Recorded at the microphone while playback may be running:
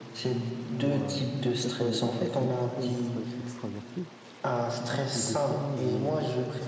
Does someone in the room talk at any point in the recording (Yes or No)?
Yes